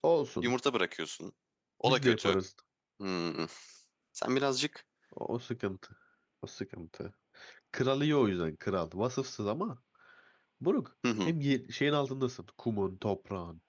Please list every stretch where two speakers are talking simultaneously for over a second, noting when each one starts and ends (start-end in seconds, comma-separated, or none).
none